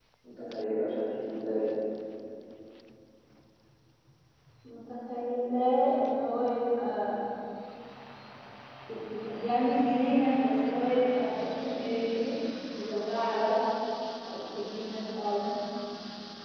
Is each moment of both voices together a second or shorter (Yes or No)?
Yes